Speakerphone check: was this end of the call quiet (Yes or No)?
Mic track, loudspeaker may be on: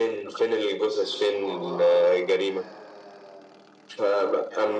No